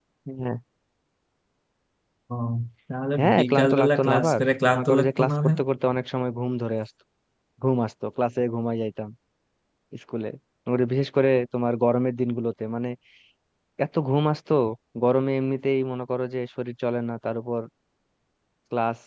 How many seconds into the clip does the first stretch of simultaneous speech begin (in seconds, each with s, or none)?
3.2 s